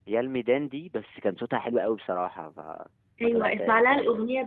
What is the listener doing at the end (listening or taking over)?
taking over